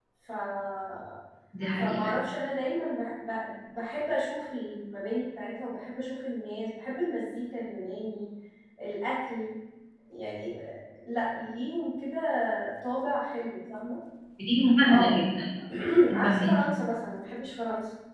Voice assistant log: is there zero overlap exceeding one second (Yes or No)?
Yes